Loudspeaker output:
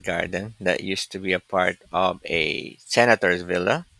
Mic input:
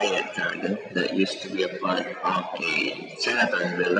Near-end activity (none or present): none